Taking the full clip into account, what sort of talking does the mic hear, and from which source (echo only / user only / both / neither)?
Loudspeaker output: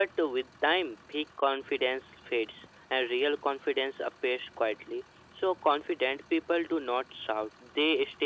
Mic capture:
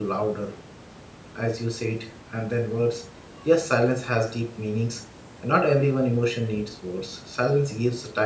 user only